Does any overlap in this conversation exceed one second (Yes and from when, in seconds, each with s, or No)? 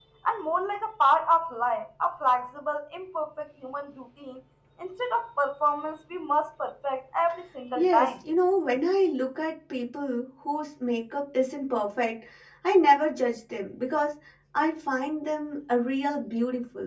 No